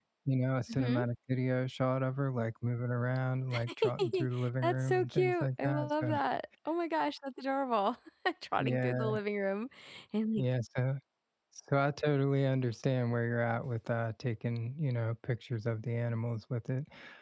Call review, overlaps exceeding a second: present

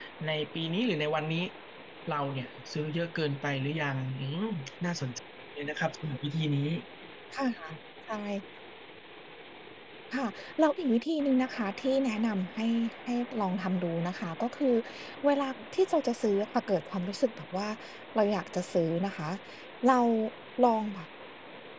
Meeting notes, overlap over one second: none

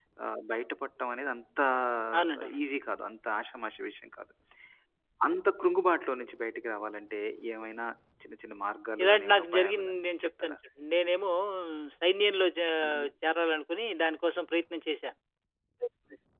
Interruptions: present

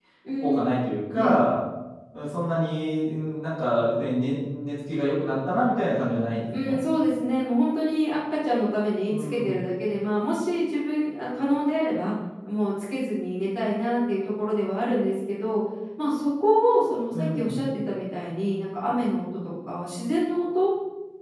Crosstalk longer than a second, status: none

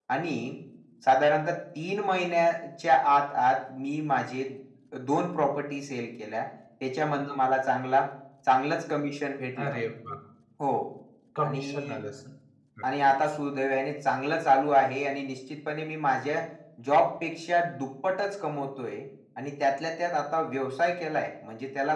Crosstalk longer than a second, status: none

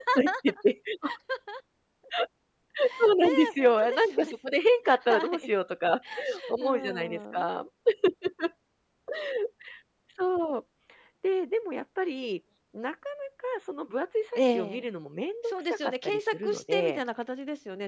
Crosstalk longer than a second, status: present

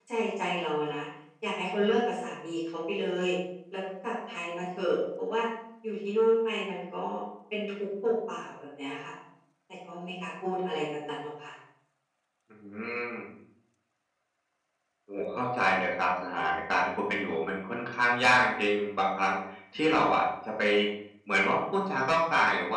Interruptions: none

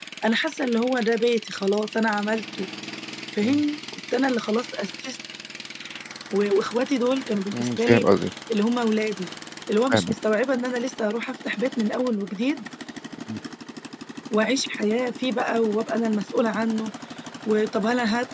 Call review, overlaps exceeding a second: none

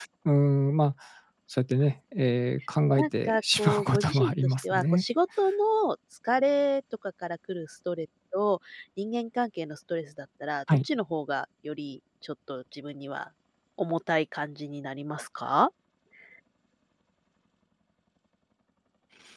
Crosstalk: present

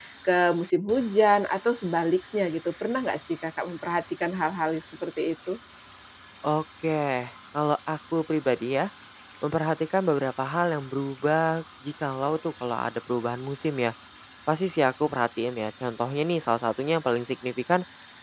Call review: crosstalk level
none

